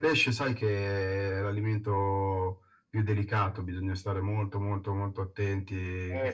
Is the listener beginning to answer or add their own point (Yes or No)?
Yes